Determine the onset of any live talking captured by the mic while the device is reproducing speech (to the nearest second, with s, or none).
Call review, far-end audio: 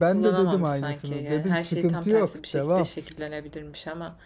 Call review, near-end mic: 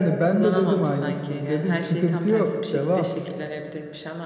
none